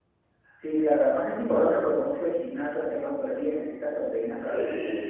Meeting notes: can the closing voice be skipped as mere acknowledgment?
No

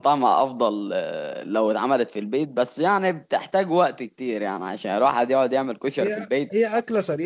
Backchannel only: No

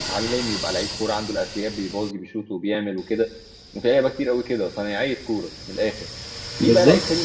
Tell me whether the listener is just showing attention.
Yes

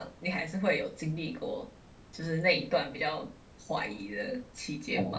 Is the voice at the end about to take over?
Yes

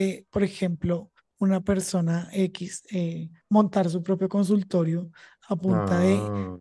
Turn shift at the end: No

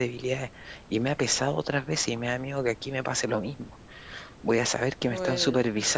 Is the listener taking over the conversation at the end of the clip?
No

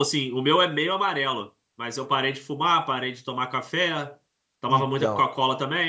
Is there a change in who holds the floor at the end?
No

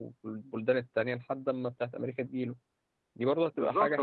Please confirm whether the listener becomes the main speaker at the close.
Yes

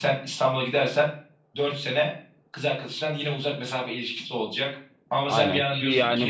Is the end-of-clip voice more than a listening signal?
Yes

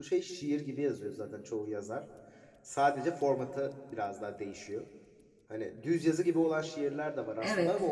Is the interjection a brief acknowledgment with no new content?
Yes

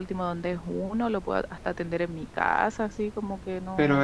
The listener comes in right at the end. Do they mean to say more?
Yes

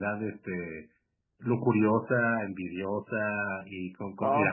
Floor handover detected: Yes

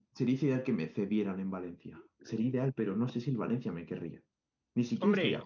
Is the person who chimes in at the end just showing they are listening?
No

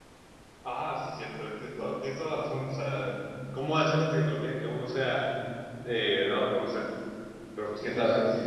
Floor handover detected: Yes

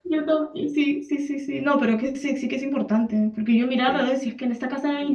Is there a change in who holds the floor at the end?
No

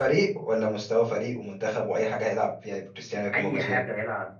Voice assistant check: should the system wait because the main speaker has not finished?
No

